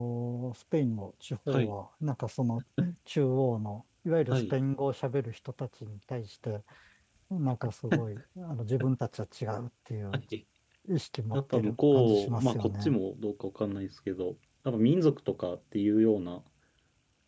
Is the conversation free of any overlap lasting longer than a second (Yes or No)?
No